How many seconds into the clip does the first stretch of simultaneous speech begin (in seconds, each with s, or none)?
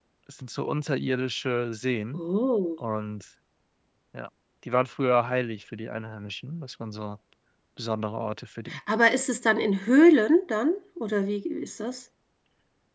none